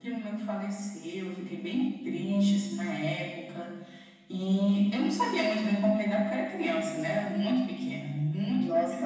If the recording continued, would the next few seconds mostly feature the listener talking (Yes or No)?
Yes